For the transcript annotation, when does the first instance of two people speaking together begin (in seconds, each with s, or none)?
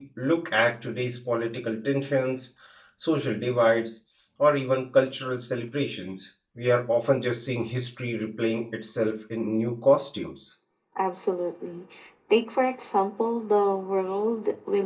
none